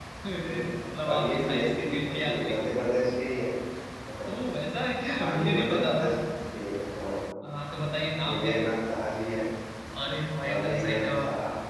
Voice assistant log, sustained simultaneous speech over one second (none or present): present